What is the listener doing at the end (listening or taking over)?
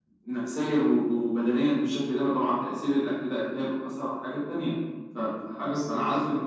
listening